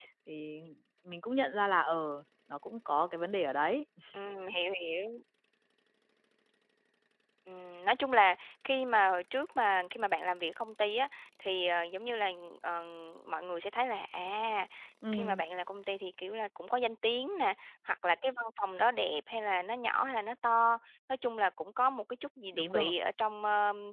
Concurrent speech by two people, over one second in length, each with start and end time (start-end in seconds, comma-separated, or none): none